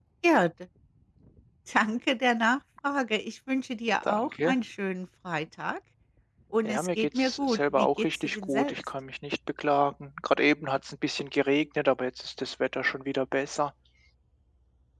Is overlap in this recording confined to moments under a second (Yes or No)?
No